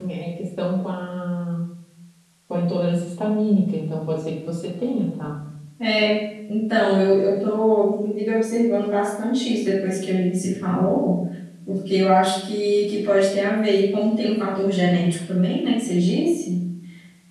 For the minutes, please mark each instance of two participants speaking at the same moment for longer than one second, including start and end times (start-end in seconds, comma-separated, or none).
none